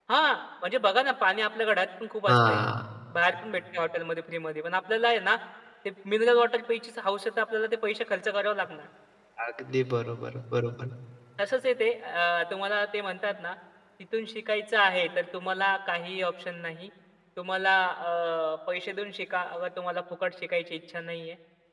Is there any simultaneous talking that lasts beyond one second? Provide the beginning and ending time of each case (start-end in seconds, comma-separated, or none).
none